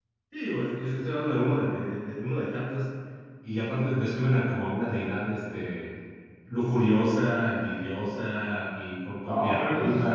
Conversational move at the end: taking over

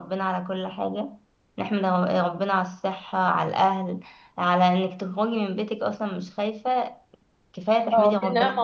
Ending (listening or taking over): taking over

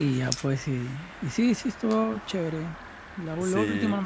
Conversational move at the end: listening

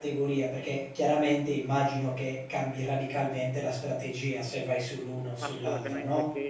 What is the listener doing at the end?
taking over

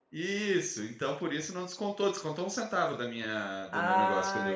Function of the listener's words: taking over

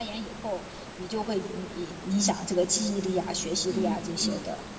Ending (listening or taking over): taking over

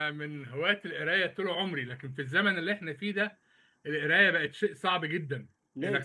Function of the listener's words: listening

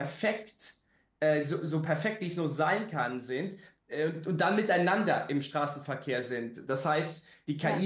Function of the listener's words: listening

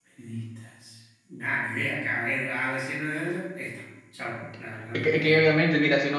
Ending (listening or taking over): taking over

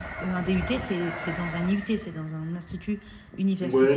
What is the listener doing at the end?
taking over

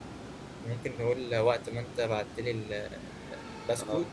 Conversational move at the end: listening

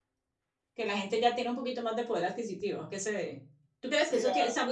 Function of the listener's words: listening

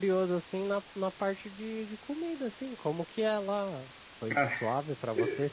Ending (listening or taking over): listening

